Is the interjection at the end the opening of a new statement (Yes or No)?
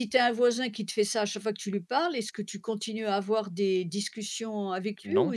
No